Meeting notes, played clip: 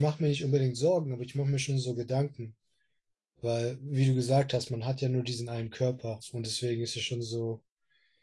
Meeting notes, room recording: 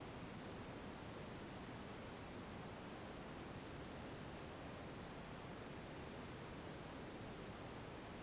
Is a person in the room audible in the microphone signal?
No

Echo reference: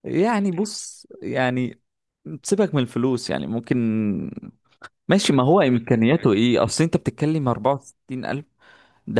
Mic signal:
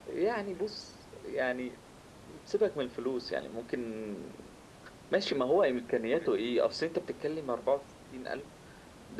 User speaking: No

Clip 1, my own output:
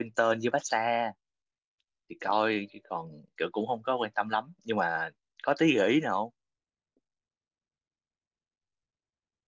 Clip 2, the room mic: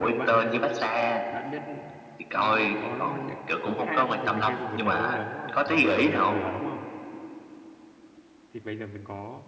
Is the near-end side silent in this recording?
No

